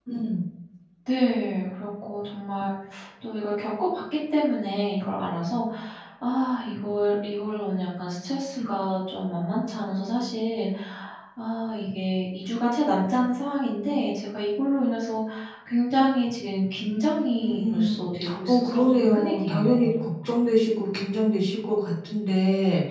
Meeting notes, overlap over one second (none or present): present